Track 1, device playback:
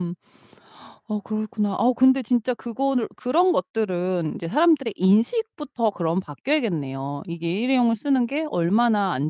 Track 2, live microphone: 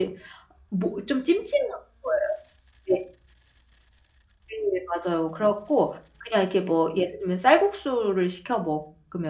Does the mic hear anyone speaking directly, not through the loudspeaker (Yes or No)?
Yes